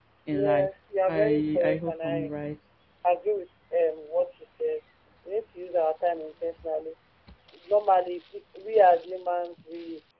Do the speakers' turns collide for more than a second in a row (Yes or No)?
Yes